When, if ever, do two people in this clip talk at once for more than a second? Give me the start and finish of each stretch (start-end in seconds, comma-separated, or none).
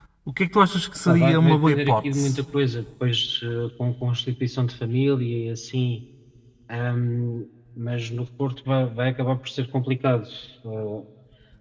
1.1-2.4